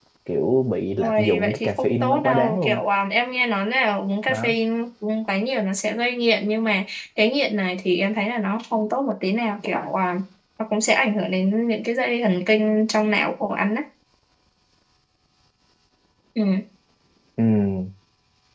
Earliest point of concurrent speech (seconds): 1.0 s

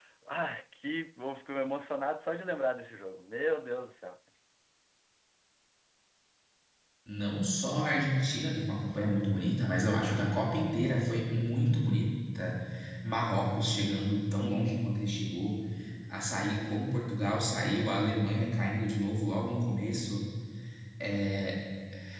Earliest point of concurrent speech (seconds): none

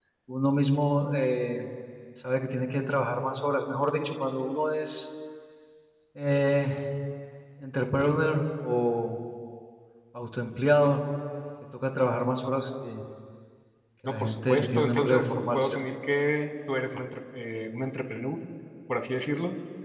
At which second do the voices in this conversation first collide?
14.0 s

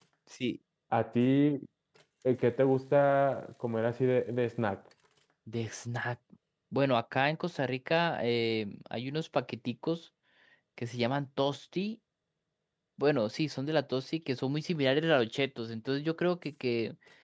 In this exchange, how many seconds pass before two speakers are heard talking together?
none

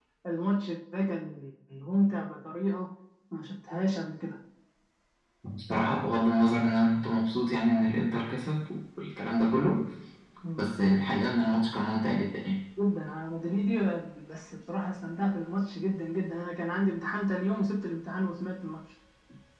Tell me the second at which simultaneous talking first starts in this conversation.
none

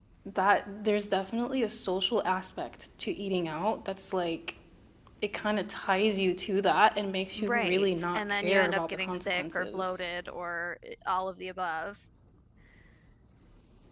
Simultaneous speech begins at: 7.3 s

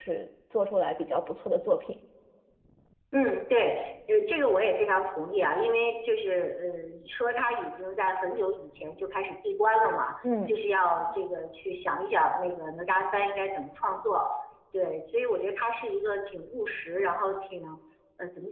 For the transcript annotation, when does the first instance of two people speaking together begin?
none

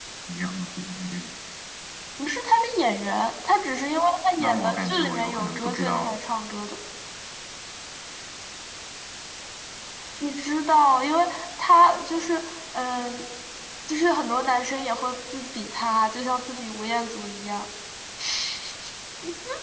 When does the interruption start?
4.4 s

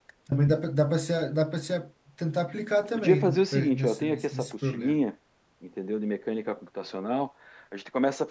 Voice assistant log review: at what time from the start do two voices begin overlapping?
3.0 s

